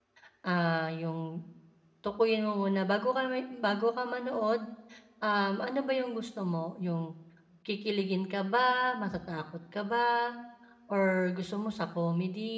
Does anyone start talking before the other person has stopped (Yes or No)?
No